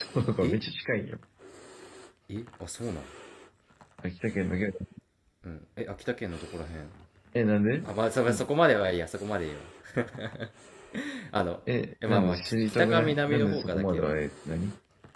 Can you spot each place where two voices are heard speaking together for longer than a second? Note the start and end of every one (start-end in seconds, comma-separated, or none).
12.1-14.1